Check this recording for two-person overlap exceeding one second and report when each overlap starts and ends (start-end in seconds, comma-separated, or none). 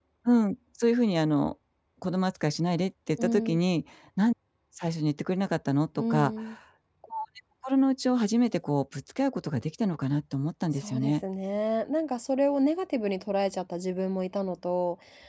none